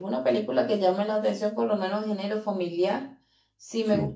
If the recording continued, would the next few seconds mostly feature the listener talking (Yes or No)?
No